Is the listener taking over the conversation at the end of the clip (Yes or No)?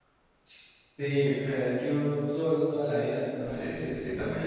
Yes